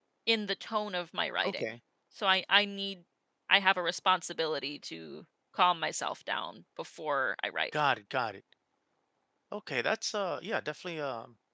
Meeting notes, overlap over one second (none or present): none